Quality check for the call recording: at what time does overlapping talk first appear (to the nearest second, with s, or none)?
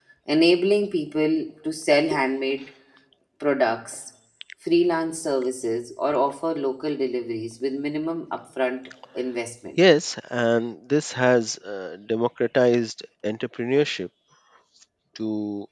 none